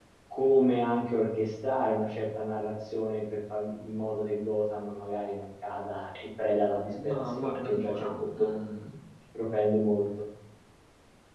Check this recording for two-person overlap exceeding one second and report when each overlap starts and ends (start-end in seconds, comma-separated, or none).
7.1-8.6